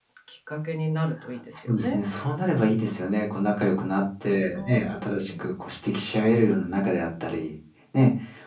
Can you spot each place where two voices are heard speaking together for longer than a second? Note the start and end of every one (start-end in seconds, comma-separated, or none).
none